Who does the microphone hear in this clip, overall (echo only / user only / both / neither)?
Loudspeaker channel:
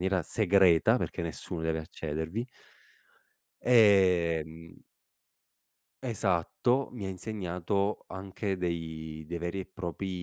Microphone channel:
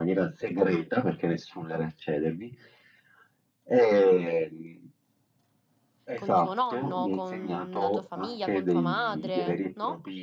both